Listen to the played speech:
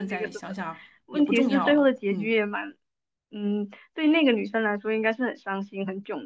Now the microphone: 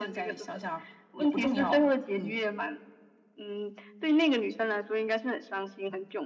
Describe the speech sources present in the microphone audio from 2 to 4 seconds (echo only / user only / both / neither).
echo only